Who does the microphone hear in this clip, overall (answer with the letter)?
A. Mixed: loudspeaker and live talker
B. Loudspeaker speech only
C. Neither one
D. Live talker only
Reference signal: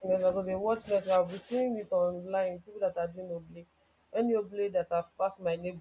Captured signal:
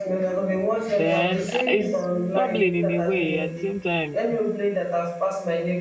A